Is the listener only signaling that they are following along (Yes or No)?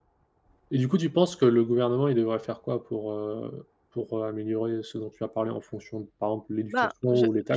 No